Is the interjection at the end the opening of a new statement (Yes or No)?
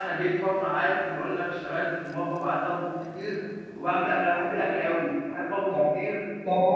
Yes